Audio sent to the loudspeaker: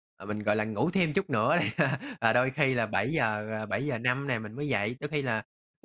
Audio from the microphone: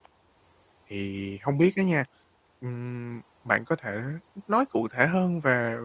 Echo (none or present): none